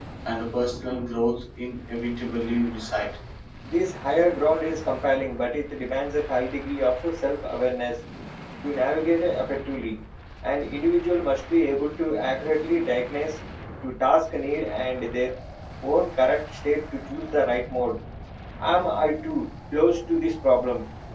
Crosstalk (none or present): none